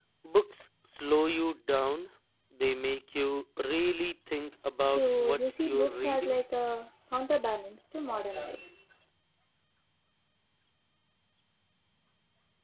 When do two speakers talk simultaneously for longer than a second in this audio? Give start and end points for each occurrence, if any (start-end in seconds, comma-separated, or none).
4.8-6.4